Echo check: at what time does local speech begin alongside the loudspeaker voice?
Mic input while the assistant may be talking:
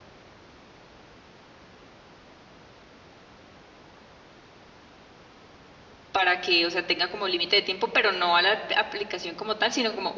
6 s

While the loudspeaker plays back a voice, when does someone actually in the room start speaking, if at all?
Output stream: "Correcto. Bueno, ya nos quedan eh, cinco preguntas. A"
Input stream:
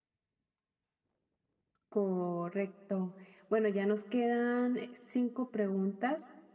none

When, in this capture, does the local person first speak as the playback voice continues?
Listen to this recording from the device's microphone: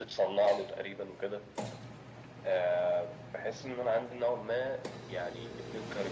none

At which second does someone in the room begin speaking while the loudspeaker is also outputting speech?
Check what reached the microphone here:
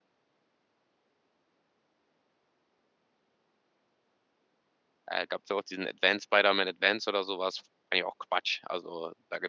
5 s

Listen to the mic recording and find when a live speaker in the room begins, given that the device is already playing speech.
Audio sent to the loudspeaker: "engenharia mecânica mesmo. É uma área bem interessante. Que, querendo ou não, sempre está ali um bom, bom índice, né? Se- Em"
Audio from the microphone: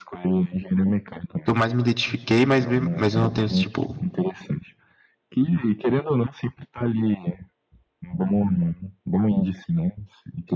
1 s

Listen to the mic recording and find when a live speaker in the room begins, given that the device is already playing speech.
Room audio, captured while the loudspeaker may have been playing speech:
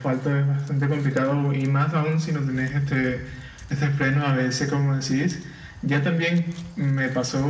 none

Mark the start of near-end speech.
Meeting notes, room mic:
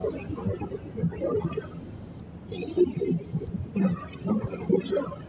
none

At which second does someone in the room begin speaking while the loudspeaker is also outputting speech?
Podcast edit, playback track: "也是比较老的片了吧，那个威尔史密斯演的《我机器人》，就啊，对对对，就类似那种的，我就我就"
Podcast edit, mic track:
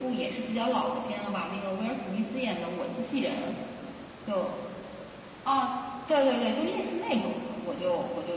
none

